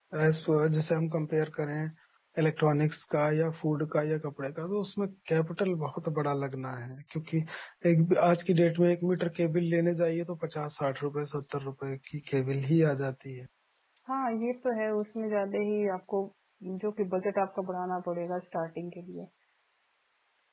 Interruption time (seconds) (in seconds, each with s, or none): none